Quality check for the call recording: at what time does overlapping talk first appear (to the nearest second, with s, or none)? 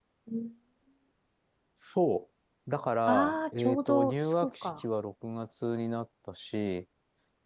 3 s